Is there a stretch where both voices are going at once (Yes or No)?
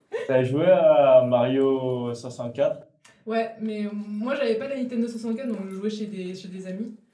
No